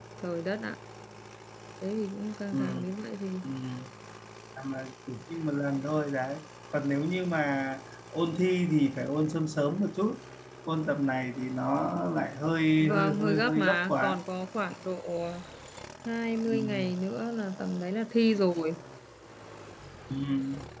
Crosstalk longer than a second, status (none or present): present